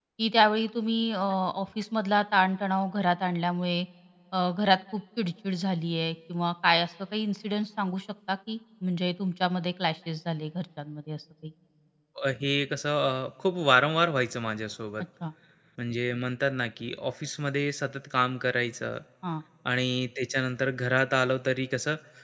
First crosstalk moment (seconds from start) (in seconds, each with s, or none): none